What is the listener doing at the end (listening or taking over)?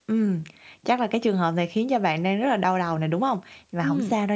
listening